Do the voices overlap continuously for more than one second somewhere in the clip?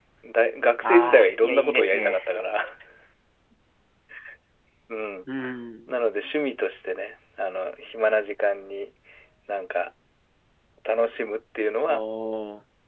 Yes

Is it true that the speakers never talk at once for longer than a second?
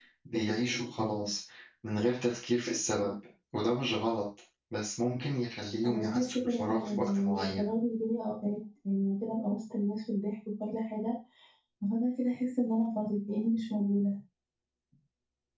No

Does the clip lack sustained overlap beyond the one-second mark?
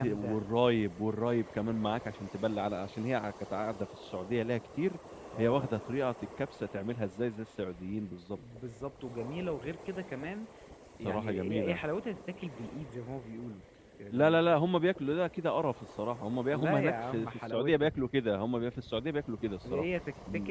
No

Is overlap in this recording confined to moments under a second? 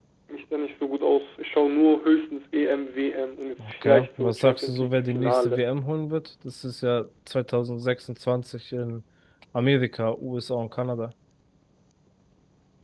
No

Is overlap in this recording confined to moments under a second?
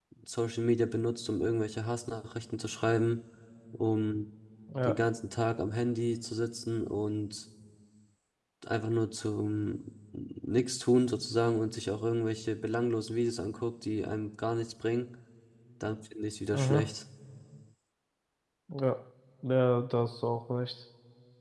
Yes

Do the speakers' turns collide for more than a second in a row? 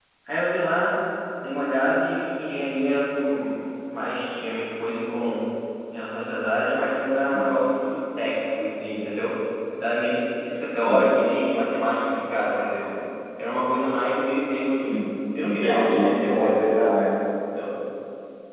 Yes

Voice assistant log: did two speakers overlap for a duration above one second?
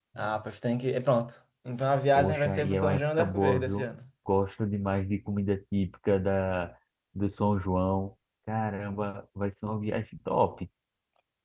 Yes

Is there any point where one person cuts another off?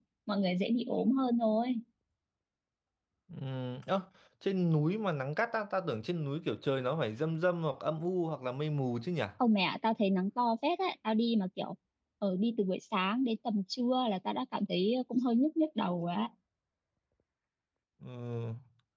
No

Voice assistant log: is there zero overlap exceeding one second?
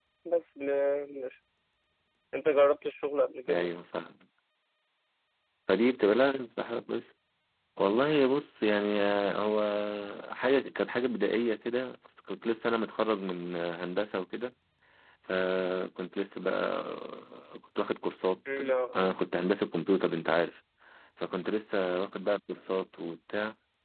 Yes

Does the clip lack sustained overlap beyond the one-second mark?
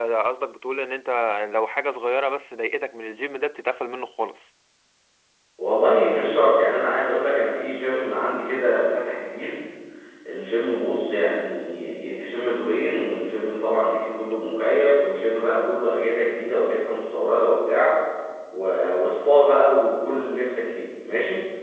Yes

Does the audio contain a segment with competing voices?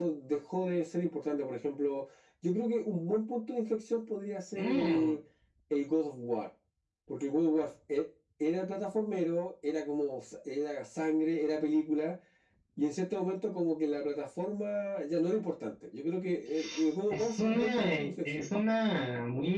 Yes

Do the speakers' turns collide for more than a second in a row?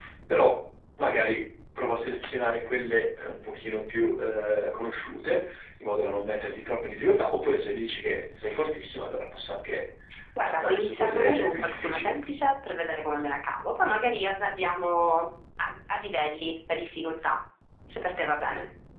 Yes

